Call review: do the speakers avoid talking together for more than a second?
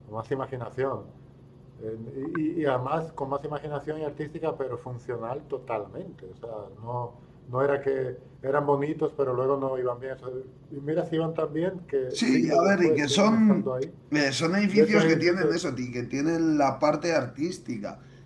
No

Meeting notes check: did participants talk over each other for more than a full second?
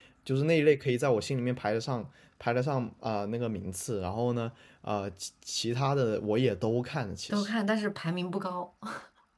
No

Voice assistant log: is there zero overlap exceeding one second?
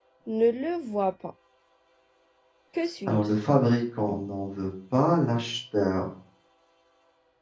Yes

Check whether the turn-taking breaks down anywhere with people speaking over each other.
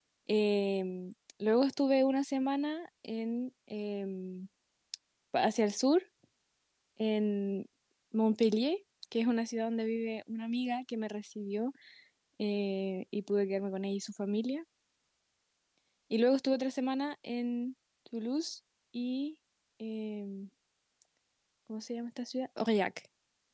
No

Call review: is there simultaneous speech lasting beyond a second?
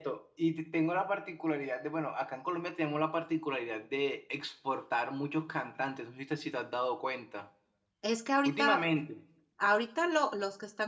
No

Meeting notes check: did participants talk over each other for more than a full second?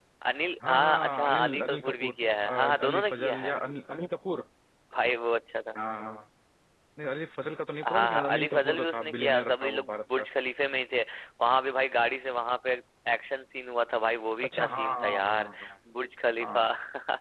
Yes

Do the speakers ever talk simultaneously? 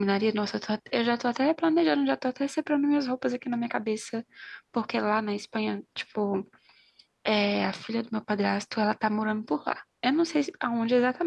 No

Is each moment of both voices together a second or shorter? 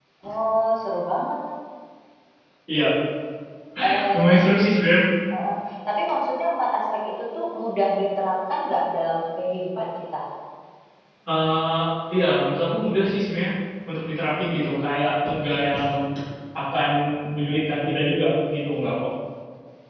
Yes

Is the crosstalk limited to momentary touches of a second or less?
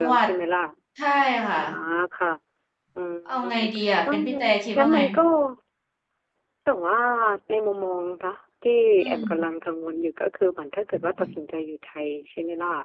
Yes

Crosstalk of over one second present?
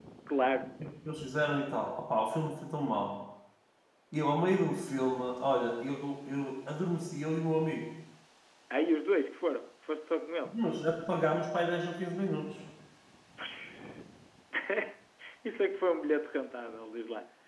No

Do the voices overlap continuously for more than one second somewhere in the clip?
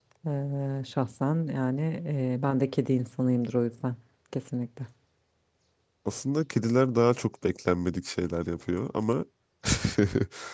No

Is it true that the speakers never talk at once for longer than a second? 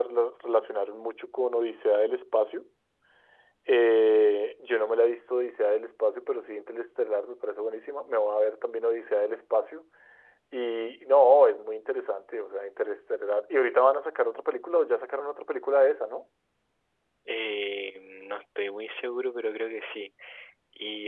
Yes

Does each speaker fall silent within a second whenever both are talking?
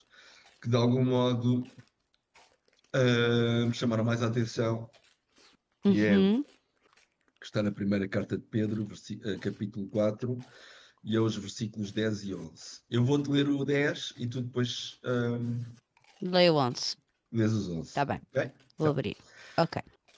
Yes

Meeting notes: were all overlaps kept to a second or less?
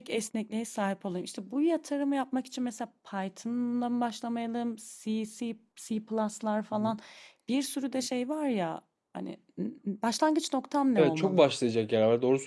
Yes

